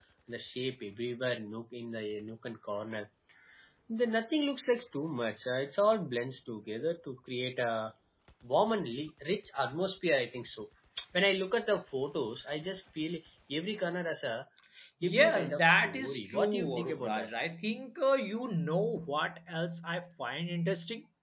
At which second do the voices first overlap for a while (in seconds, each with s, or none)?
15.0 s